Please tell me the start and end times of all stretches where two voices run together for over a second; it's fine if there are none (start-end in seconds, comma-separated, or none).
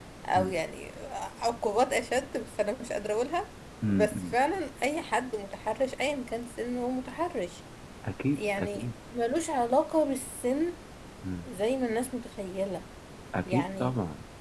none